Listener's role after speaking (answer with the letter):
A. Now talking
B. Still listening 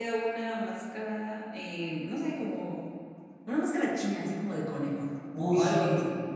A